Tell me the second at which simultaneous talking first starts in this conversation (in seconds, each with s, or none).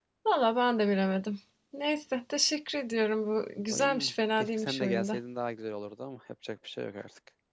3.7 s